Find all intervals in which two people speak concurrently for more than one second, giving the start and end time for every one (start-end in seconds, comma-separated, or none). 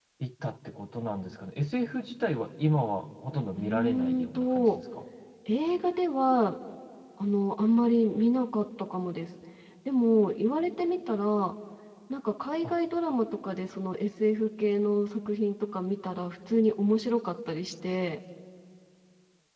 3.5-4.8